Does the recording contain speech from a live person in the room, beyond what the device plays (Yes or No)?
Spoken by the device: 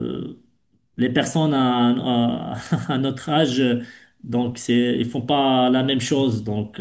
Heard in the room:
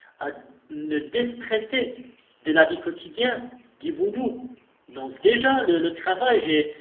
Yes